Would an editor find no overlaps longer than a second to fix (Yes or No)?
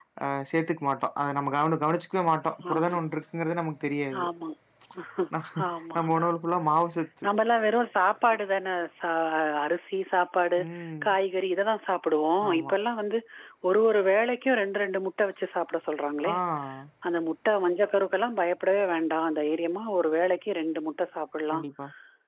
Yes